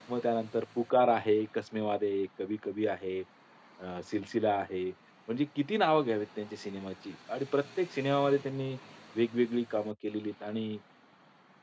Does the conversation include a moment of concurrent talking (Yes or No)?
No